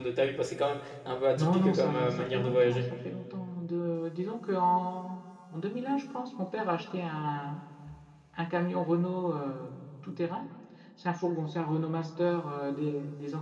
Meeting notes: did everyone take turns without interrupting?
No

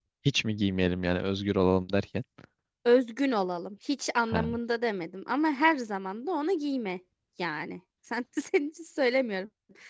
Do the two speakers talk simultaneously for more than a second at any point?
No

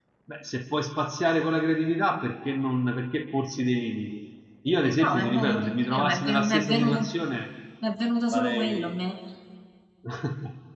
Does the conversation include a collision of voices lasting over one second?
Yes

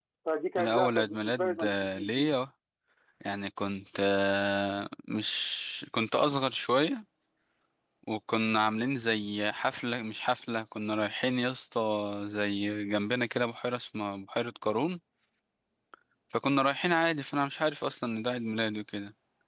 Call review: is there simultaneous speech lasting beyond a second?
Yes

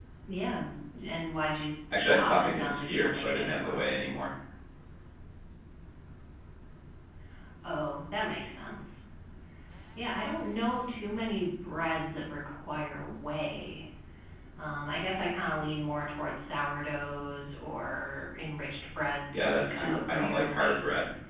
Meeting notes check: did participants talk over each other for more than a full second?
Yes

